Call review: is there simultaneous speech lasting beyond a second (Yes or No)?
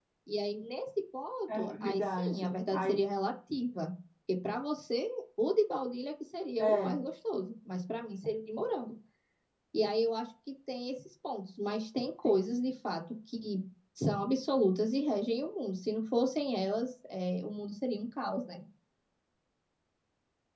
Yes